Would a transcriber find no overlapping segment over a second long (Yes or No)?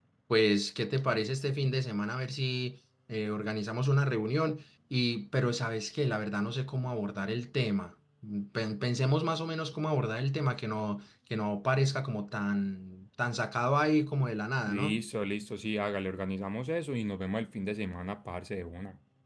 Yes